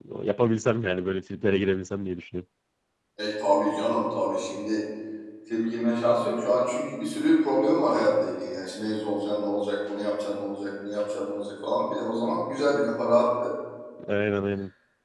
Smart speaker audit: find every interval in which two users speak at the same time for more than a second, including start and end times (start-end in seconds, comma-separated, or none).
none